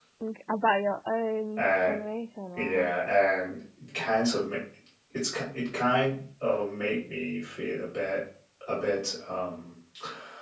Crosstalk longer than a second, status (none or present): none